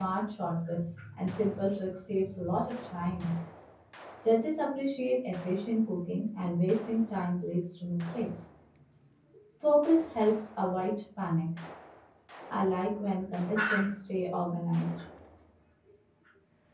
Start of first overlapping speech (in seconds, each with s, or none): none